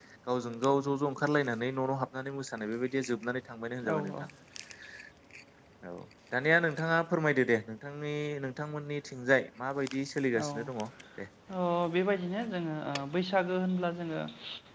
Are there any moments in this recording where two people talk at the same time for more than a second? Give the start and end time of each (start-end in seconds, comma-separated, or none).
none